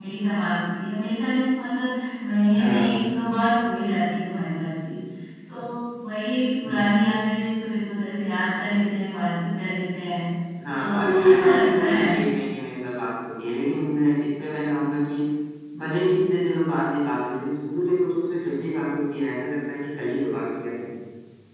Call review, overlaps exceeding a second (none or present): present